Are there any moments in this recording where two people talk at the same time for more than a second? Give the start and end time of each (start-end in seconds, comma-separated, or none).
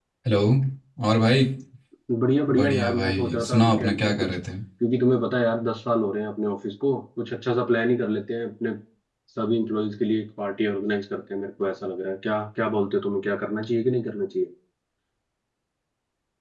2.5-4.3